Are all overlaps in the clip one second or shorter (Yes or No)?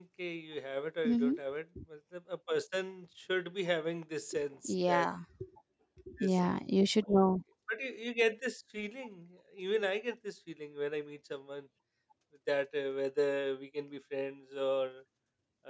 Yes